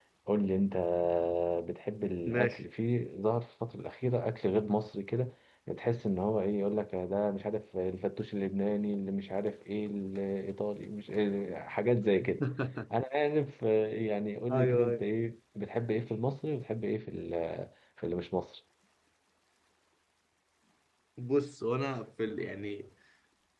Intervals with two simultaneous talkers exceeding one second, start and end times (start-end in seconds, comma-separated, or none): none